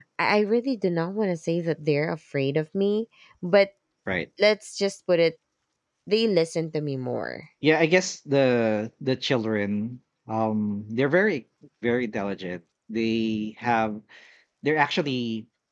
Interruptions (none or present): none